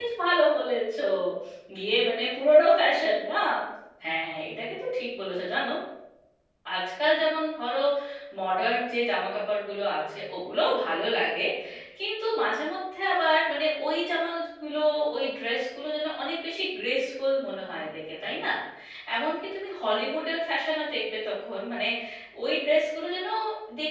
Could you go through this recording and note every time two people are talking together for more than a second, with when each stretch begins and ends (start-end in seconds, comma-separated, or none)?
none